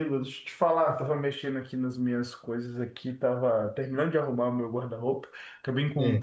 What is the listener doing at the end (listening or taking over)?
listening